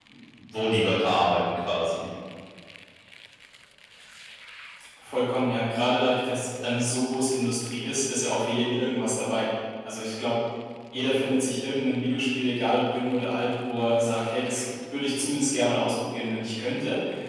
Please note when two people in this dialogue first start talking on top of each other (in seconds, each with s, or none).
none